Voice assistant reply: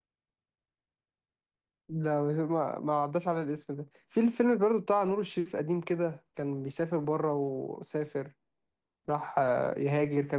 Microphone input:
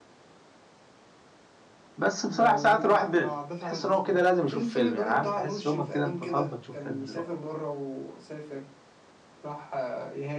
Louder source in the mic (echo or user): user